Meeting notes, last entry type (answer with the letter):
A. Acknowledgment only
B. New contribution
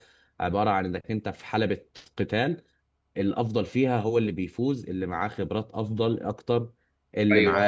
B